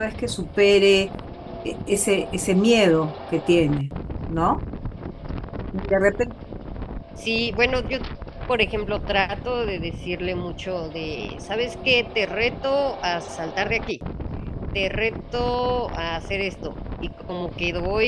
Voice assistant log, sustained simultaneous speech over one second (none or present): none